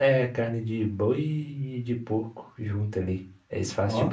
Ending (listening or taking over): listening